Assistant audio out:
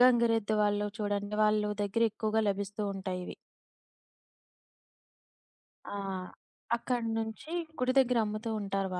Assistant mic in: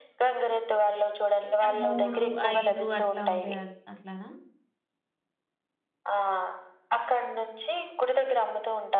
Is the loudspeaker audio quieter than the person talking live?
No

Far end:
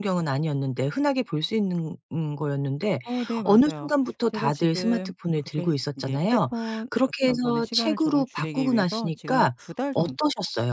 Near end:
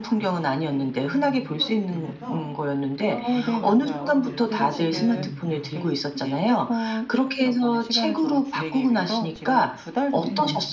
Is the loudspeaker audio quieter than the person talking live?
No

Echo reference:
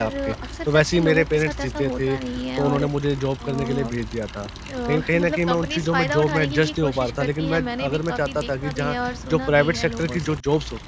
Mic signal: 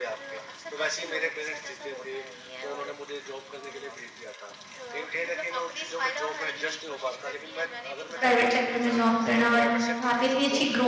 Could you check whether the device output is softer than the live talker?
Yes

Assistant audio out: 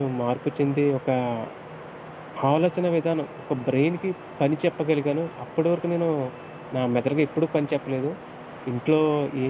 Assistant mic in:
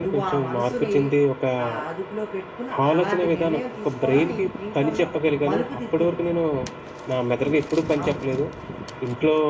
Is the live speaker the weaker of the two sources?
Yes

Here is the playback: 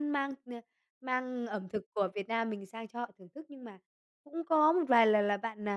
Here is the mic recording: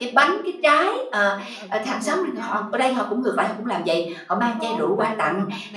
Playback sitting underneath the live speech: Yes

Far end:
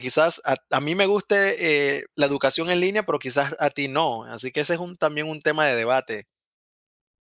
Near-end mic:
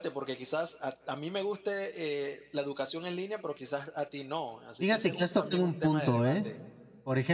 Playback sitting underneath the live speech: Yes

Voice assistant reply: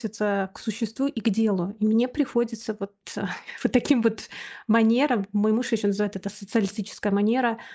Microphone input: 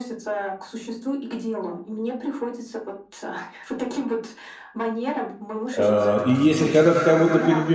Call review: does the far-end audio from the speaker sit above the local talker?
No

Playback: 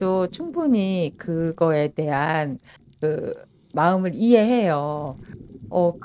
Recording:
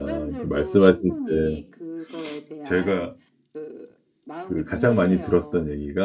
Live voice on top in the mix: Yes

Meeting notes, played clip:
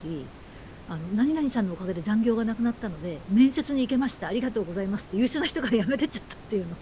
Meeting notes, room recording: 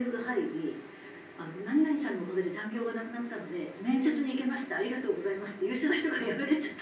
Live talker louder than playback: No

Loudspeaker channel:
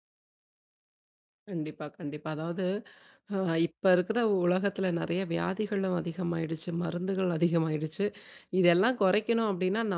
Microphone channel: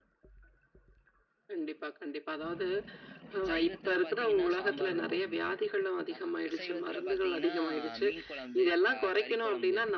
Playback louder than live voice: Yes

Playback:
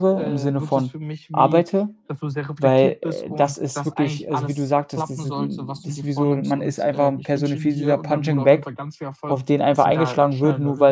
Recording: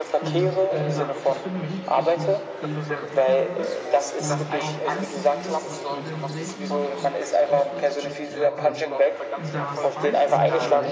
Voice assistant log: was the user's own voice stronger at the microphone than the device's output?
No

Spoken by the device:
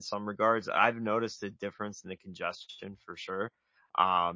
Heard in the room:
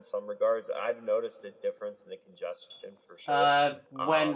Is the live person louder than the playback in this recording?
Yes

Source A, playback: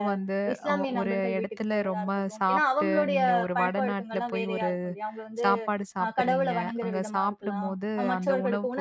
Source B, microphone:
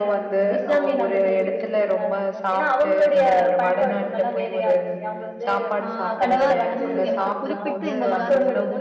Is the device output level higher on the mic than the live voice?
Yes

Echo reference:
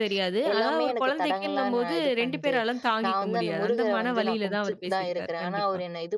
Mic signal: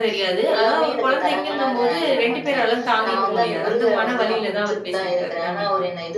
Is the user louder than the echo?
No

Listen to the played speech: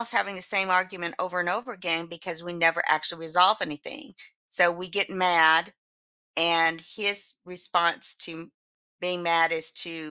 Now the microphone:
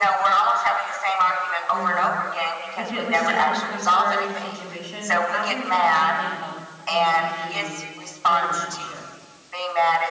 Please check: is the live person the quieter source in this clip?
Yes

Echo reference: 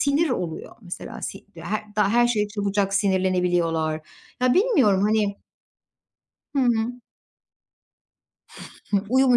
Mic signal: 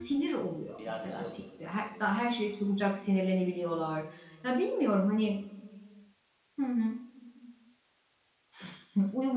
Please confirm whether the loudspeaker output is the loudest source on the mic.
Yes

